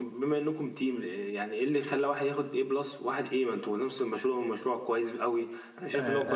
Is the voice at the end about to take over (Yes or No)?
Yes